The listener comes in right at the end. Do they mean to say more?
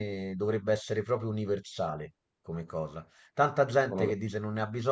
No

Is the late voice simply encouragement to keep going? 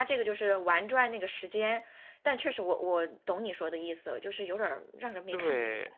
No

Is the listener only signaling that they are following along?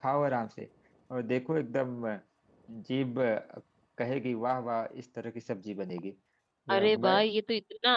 No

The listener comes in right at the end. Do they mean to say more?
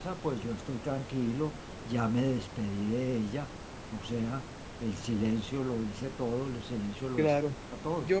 Yes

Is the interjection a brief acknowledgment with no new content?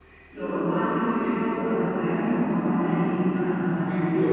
No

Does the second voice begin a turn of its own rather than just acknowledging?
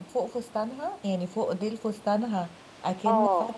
No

